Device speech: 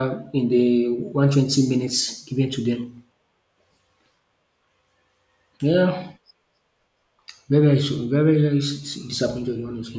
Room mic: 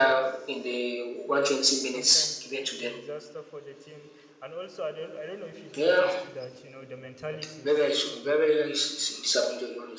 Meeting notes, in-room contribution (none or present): present